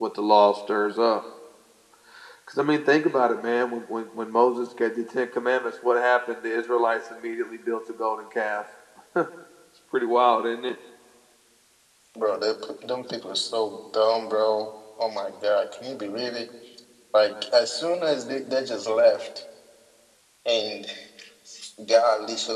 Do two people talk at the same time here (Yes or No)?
No